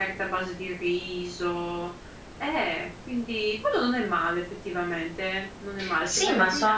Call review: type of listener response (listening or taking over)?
taking over